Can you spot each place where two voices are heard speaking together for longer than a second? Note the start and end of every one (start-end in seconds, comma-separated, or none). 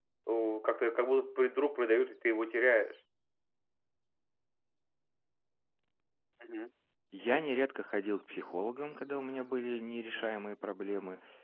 none